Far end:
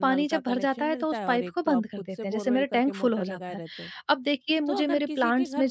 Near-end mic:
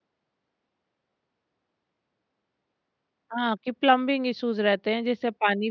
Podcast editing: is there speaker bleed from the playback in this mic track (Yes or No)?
No